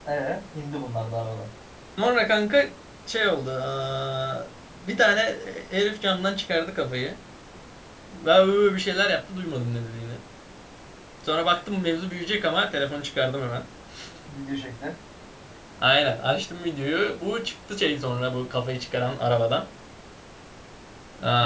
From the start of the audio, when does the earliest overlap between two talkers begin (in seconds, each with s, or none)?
none